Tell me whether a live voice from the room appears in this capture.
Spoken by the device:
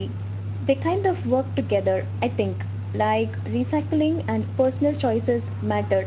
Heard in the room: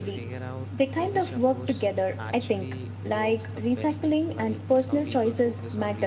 Yes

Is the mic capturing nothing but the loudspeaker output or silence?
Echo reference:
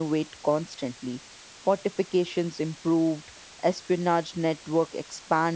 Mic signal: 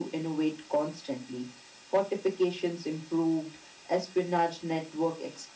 Yes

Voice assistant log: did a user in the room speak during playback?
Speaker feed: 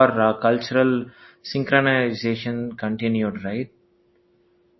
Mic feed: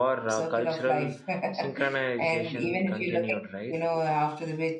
Yes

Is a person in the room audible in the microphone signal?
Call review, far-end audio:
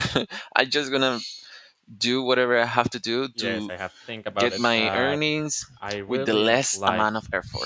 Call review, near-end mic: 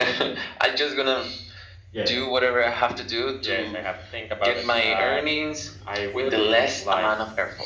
Yes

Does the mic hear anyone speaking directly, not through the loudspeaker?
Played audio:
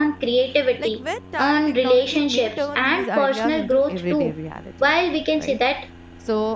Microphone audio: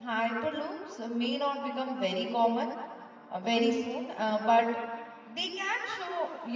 Yes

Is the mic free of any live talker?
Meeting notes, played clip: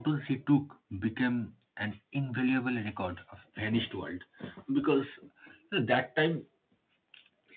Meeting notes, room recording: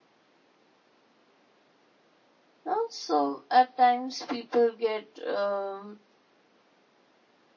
No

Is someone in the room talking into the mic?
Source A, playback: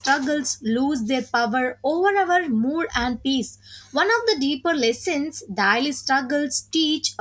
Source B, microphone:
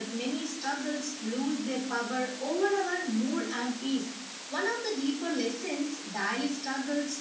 No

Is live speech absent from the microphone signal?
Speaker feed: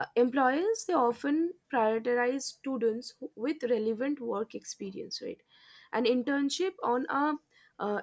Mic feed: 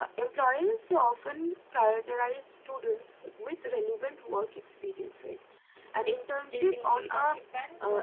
No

